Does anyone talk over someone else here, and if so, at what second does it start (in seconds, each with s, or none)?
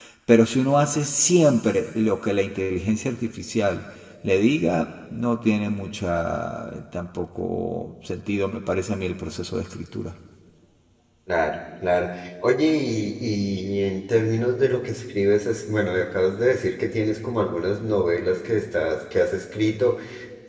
none